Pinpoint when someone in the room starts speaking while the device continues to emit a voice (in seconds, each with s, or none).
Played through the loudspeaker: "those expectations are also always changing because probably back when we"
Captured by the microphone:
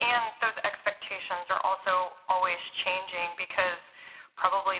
none